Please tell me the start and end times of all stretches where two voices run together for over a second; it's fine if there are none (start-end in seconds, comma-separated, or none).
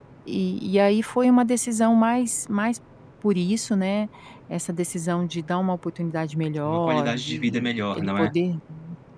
6.6-8.3